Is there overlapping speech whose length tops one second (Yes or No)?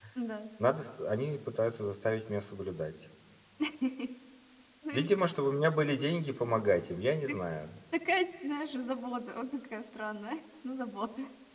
No